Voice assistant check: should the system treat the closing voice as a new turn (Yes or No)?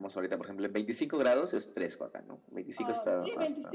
Yes